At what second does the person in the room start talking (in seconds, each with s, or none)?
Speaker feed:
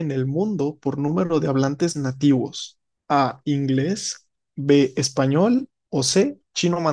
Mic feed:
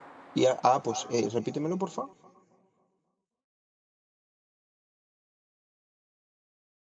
0.3 s